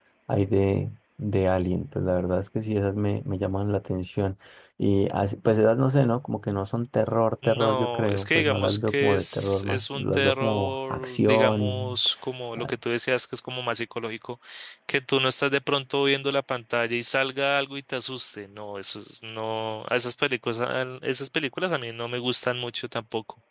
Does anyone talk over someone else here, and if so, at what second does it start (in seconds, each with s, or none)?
7.4 s